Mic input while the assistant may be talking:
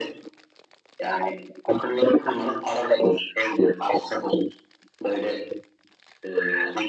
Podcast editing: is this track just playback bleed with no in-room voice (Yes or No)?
Yes